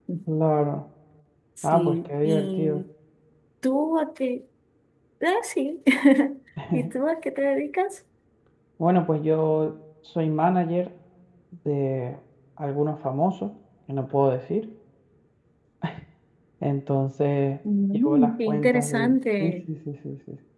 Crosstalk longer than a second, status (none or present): present